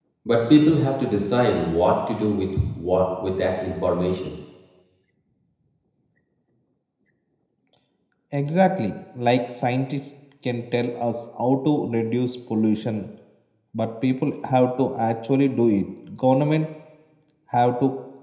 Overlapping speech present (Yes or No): No